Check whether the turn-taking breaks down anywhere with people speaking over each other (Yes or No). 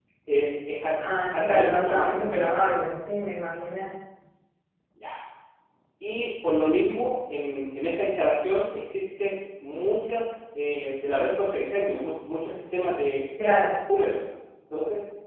Yes